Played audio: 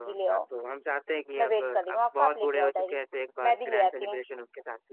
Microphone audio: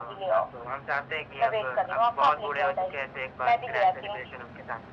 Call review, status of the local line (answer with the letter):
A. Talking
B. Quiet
B